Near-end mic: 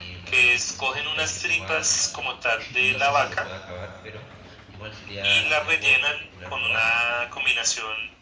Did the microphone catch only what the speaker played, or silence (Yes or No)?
No